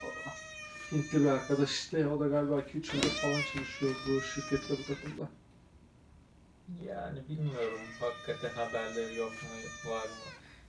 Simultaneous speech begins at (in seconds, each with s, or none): none